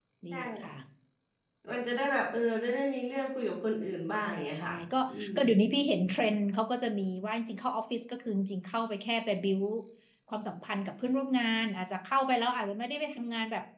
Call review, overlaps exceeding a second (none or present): none